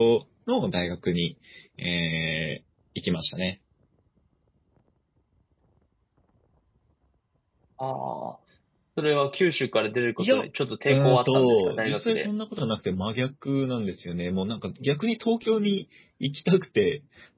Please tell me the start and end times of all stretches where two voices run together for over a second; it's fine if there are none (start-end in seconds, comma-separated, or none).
10.9-12.3